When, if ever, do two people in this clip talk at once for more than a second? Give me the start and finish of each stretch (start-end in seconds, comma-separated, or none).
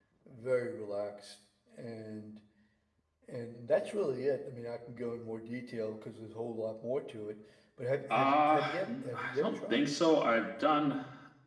8.1-9.9